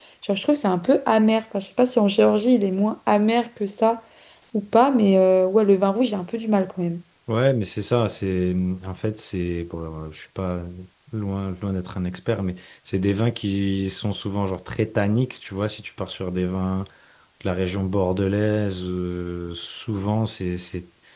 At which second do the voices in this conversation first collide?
none

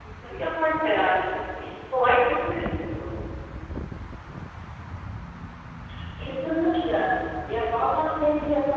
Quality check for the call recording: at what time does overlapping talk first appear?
none

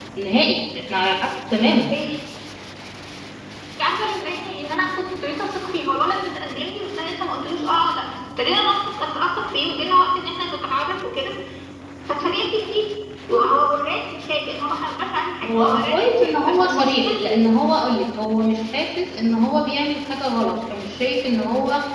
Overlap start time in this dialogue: 15.4 s

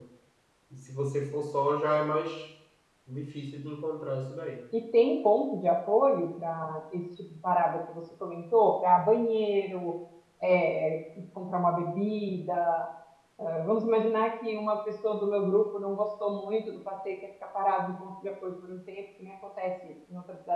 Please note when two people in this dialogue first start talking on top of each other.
none

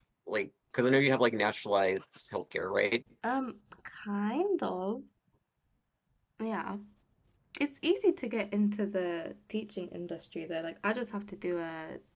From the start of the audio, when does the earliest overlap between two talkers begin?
none

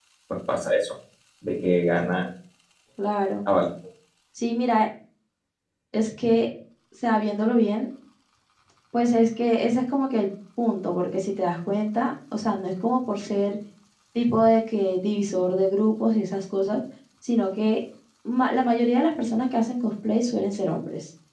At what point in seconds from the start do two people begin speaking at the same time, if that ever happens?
none

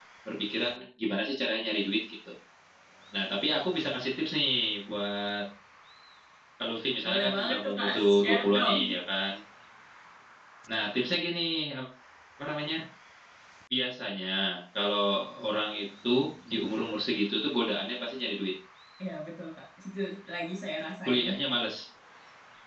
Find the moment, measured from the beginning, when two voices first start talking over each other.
7.0 s

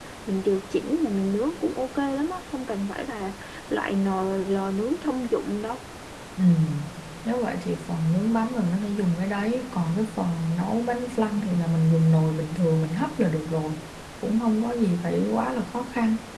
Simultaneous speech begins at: none

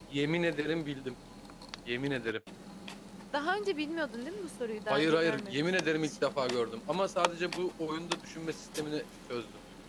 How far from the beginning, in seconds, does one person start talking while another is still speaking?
4.9 s

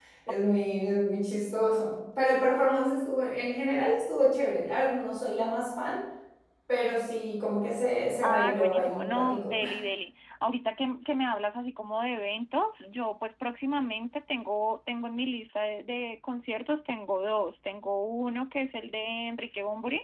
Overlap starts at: 8.2 s

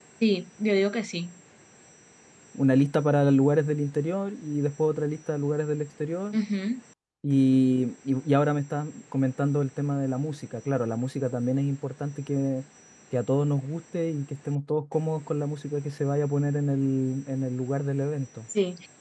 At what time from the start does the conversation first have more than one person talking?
none

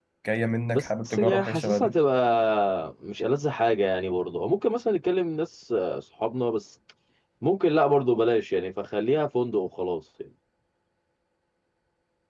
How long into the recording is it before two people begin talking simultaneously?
0.7 s

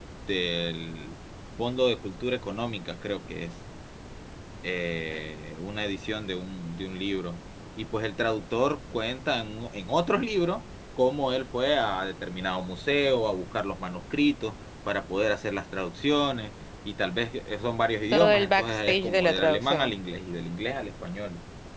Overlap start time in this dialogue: 18.1 s

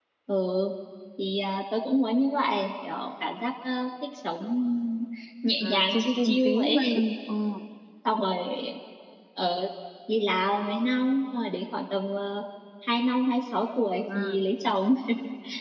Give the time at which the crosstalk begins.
5.6 s

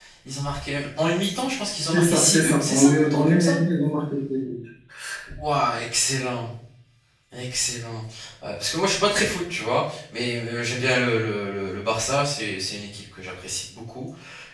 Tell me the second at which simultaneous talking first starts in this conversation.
1.9 s

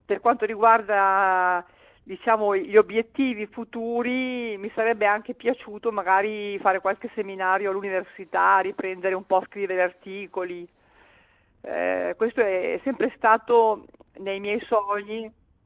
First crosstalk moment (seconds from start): none

